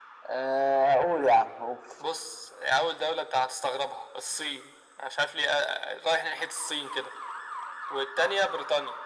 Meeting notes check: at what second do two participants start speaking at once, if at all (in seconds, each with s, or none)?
none